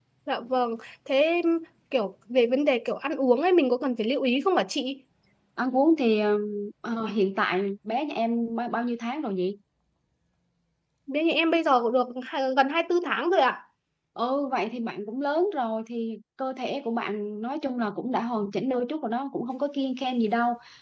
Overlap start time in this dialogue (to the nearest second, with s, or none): none